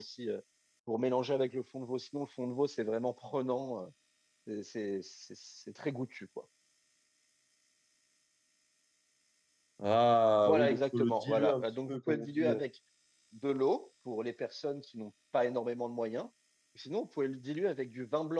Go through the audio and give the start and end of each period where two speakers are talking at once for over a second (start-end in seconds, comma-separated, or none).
10.4-12.6